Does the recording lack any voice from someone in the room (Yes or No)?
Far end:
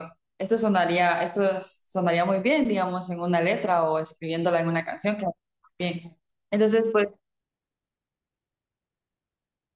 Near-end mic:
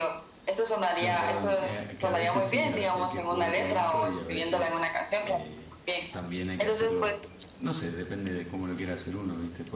No